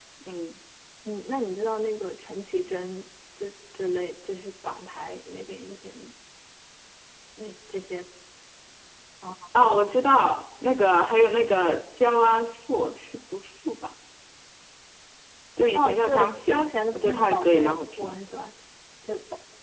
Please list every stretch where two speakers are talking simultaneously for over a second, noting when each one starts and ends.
15.8-18.1

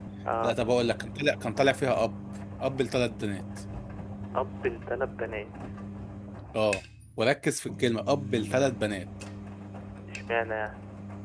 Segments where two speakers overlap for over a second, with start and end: none

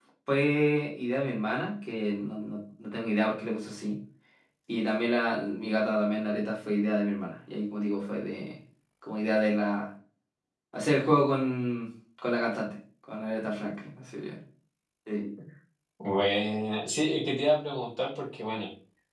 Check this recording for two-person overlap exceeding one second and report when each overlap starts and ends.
none

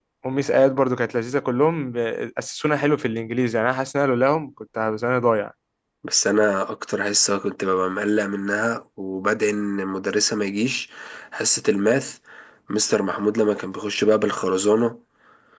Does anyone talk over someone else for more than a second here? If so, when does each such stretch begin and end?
none

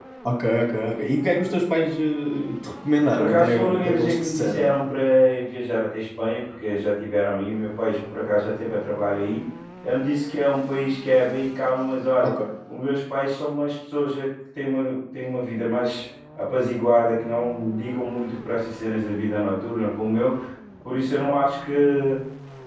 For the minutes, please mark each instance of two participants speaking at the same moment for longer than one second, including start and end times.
3.1-4.6

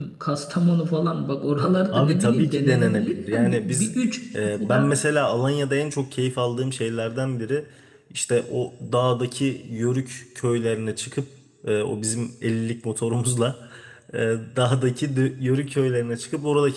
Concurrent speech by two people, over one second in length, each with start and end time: 1.9-3.9

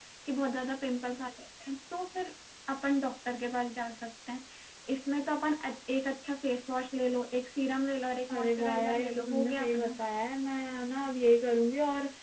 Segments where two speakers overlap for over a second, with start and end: 8.3-10.0

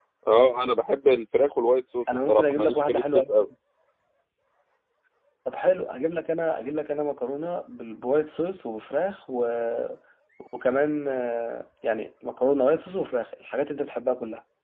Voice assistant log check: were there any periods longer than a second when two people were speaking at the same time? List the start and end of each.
2.1-3.5

